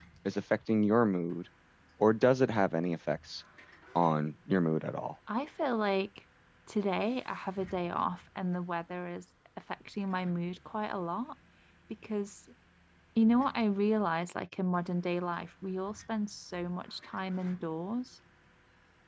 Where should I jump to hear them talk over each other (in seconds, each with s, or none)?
none